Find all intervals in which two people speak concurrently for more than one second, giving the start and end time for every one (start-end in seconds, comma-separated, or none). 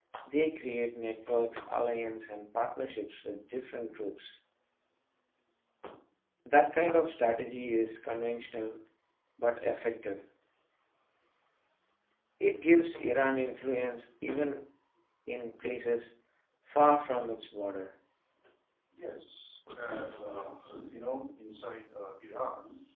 none